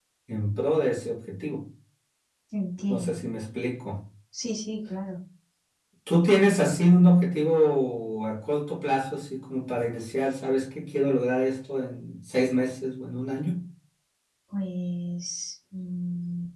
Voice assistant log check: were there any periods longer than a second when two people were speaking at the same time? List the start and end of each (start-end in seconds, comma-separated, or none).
none